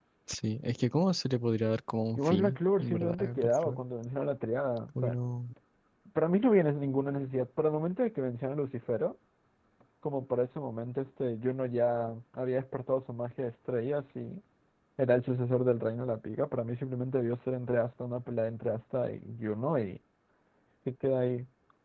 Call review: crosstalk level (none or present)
present